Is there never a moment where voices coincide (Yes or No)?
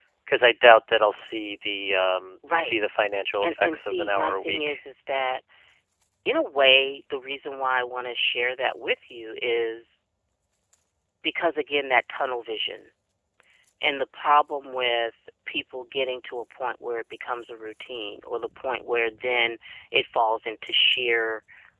No